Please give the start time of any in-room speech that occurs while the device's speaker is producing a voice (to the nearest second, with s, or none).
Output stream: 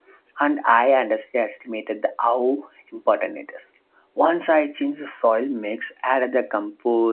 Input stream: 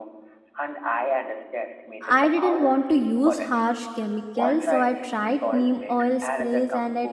2 s